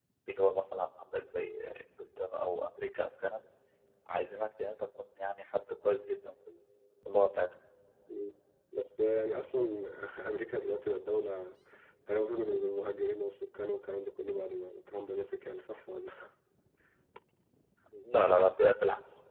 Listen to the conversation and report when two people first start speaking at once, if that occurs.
none

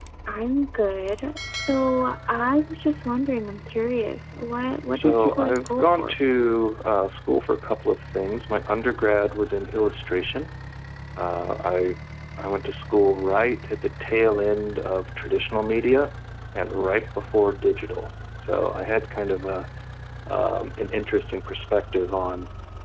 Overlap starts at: 4.9 s

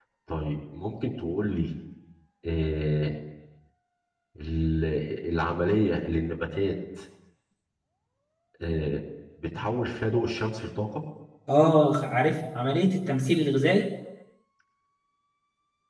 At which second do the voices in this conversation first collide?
none

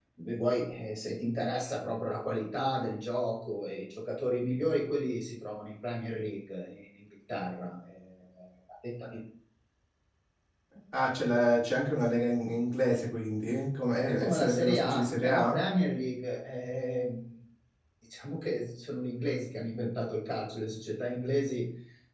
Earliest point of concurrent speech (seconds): 14.1 s

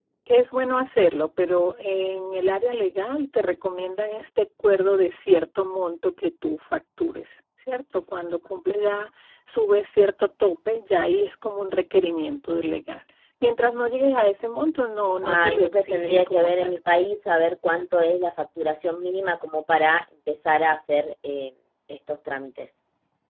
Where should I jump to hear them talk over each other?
15.2 s

